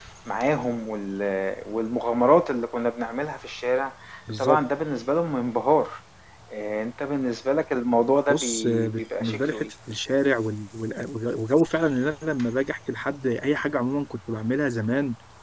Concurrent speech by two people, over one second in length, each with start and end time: 8.3-9.7

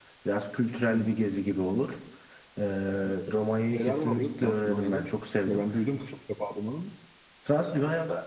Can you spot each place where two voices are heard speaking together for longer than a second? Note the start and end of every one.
3.7-5.1

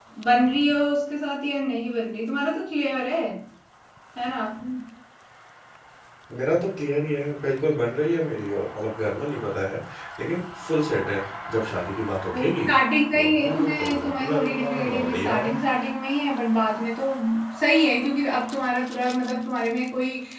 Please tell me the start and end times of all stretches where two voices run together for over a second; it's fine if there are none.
13.1-15.5

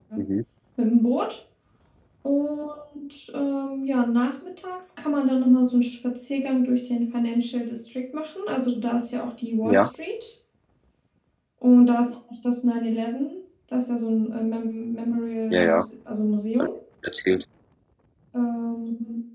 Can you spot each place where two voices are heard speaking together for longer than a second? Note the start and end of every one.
none

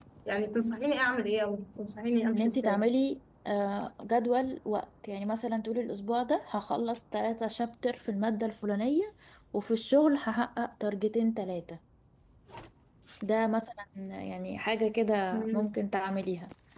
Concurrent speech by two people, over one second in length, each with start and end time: none

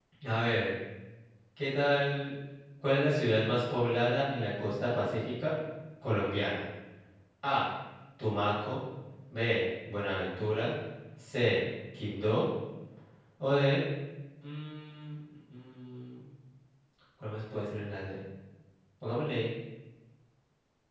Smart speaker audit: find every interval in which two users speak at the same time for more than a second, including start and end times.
none

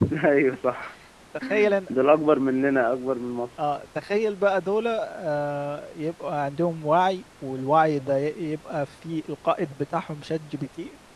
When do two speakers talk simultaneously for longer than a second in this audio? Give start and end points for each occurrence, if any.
none

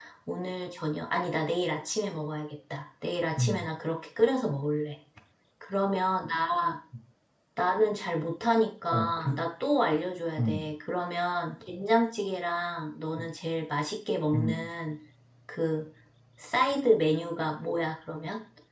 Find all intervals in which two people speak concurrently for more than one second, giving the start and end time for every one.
none

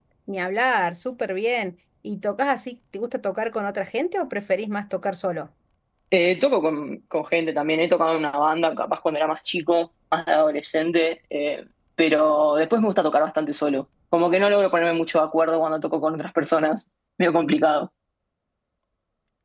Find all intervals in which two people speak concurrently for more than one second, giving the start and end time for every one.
none

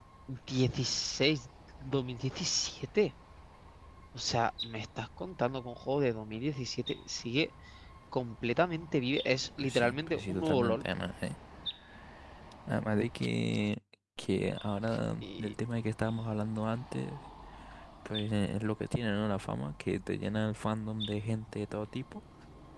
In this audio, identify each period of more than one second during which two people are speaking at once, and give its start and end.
9.6-10.8

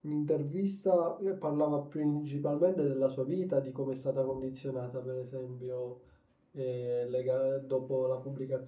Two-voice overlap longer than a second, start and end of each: none

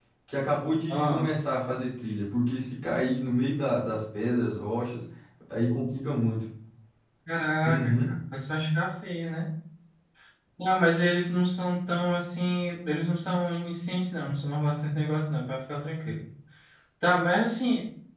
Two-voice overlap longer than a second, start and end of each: none

